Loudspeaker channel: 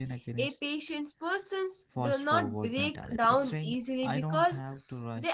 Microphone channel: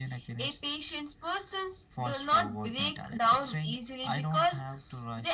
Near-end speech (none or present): none